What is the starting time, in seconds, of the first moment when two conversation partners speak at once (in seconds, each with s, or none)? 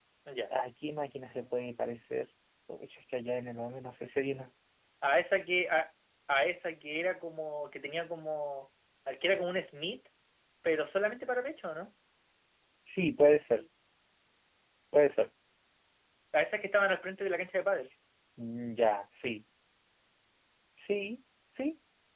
none